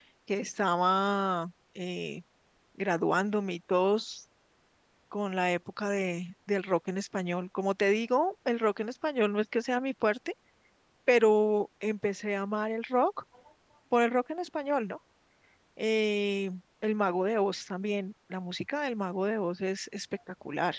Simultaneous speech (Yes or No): No